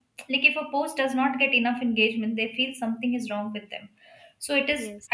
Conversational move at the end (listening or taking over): listening